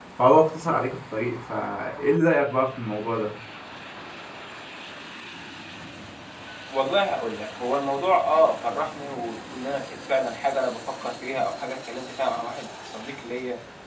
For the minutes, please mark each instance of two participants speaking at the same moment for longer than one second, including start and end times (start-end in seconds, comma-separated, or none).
none